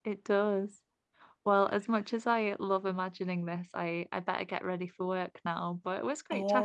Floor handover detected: Yes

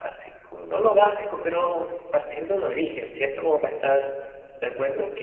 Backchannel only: Yes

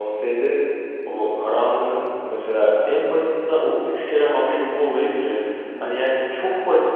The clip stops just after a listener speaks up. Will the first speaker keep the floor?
Yes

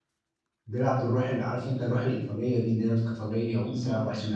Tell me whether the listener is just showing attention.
Yes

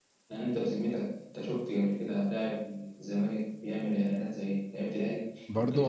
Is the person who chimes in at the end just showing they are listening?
No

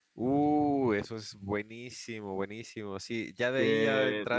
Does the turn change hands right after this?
No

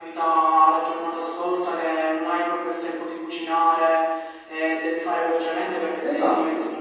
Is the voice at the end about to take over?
No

